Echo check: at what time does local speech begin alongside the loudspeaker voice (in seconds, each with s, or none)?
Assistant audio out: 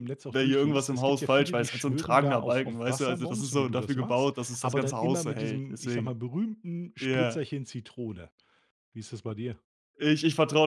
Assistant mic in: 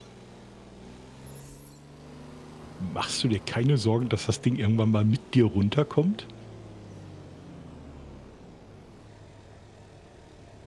2.8 s